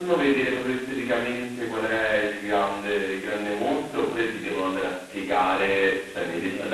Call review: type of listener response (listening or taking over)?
listening